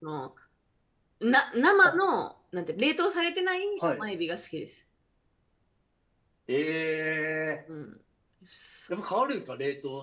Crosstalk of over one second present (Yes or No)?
No